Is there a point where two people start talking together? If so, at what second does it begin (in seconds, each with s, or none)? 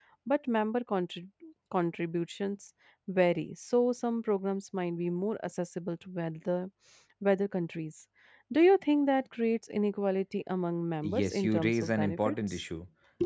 11.0 s